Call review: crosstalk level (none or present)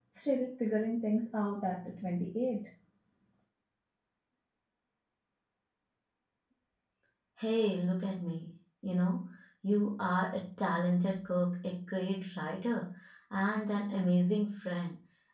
none